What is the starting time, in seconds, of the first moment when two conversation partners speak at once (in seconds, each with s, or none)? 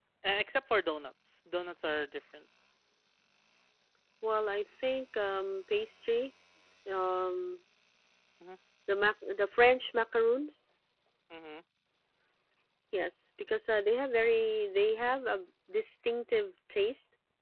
none